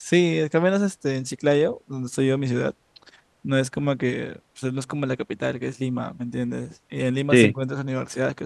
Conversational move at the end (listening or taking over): listening